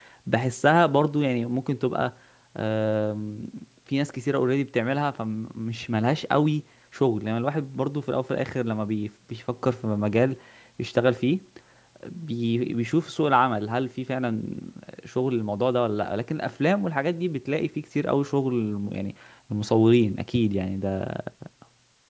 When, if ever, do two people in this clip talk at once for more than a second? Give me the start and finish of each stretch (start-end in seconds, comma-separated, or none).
none